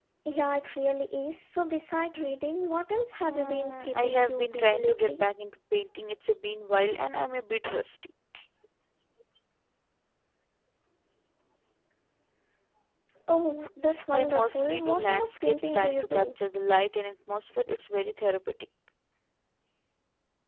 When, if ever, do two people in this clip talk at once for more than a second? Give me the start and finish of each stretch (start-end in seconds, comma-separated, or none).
3.2-5.3, 14.1-16.4